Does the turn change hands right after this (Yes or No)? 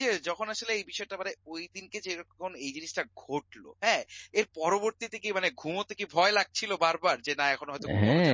Yes